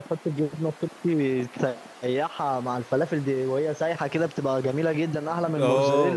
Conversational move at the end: taking over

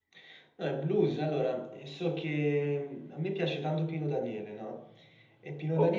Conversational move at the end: listening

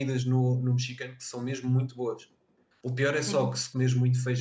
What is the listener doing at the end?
listening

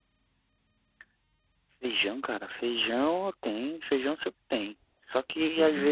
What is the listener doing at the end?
listening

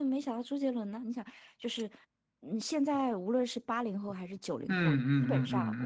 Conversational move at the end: taking over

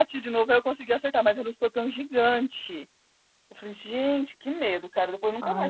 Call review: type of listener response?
taking over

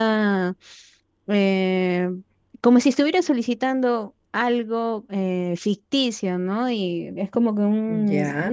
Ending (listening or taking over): listening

